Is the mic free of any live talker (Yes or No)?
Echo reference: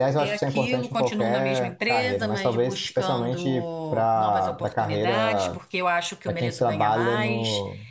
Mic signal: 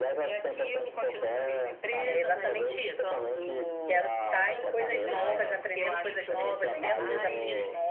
No